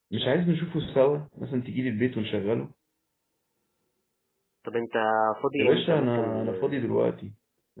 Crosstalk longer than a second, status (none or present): present